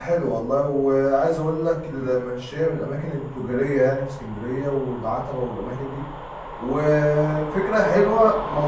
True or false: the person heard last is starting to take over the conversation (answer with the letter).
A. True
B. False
B